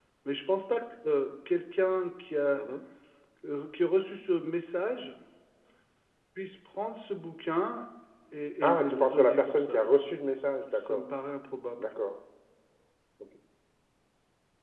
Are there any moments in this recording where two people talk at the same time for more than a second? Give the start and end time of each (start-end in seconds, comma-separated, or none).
8.6-9.8